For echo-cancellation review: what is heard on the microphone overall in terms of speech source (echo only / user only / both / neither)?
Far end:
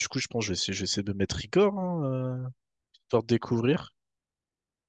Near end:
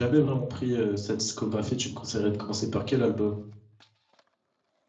user only